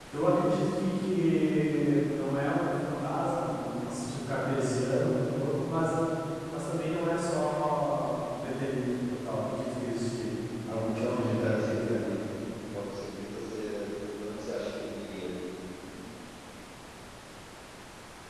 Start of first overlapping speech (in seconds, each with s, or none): 10.6 s